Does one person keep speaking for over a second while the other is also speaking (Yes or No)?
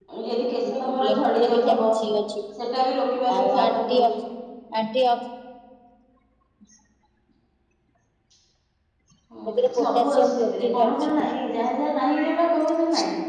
Yes